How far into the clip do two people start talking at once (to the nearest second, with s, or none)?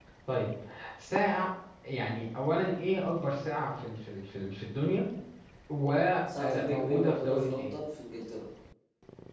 6 s